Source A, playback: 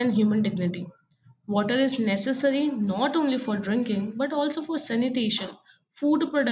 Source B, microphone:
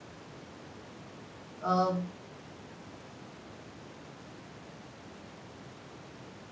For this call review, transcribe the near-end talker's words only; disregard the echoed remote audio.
uh,

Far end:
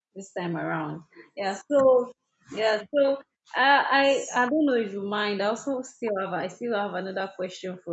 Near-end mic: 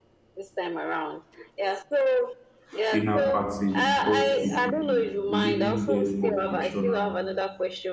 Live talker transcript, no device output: dinner party with all three people, living, dead, or fictional,

